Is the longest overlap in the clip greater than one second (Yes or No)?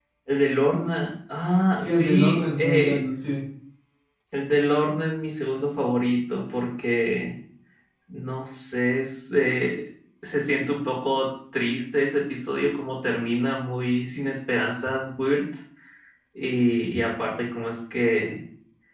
Yes